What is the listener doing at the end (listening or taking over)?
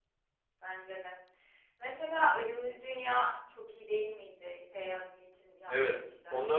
taking over